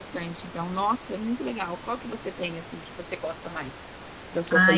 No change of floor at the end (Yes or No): No